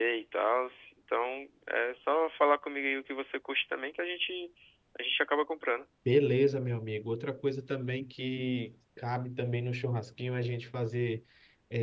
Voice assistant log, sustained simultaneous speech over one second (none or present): none